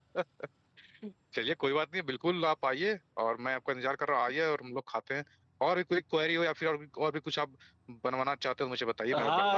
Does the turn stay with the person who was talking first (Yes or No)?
No